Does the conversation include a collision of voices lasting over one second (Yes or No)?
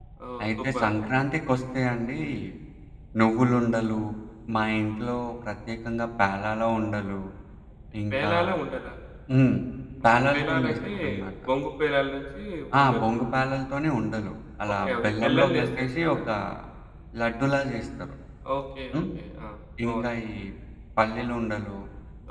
Yes